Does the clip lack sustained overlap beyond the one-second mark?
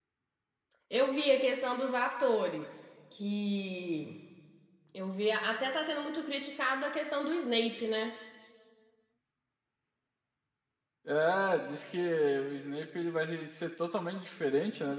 Yes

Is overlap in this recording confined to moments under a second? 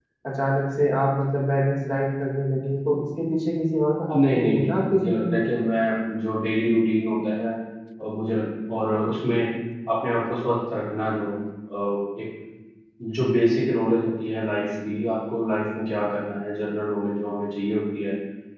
No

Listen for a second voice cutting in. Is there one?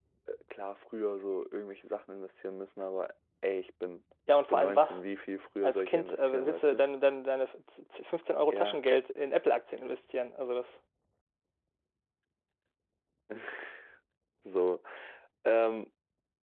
Yes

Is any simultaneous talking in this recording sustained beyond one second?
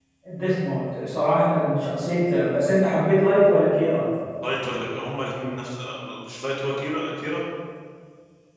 No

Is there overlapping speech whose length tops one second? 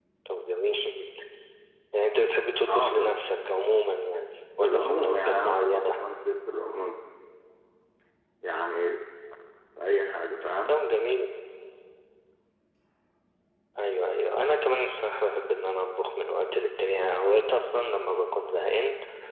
Yes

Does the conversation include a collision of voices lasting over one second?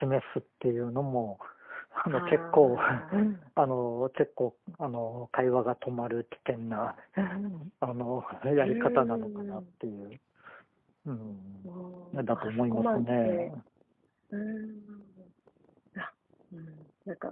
Yes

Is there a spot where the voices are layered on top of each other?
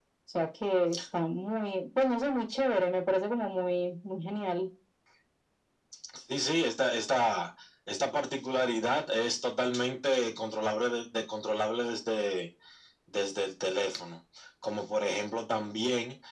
No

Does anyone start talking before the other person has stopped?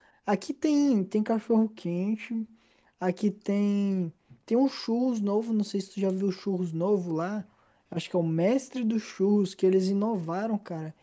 No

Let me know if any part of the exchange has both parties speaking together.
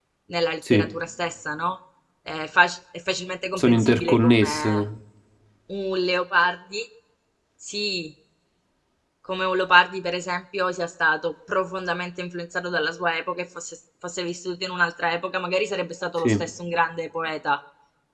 Yes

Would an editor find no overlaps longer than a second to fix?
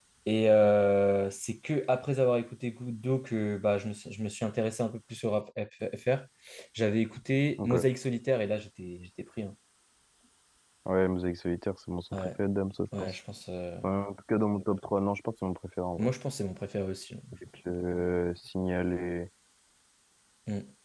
Yes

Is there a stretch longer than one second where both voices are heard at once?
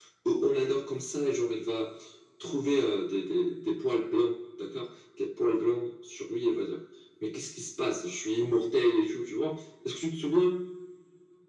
No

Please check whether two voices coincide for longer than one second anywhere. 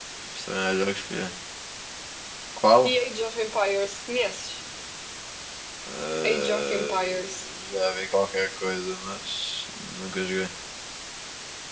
Yes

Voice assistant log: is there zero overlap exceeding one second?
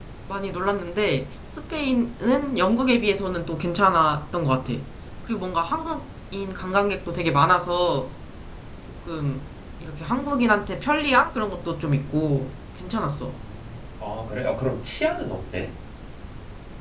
Yes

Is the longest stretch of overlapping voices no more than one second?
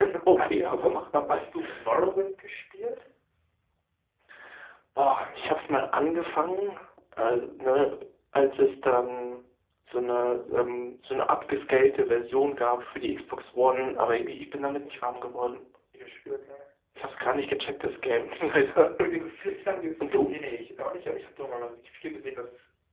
Yes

